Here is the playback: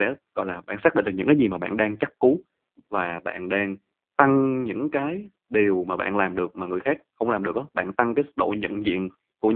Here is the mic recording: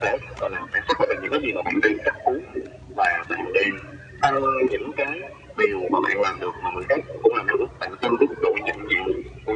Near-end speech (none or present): none